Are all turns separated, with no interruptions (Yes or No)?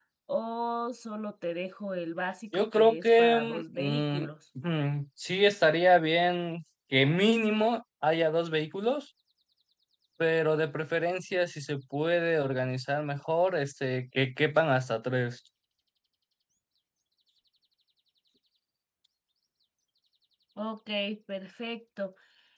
No